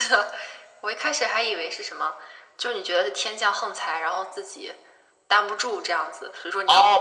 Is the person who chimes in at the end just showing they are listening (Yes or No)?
No